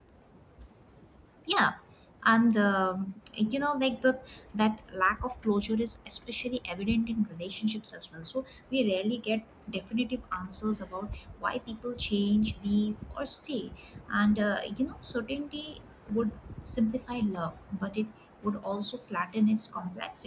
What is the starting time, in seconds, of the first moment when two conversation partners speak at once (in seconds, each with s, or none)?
none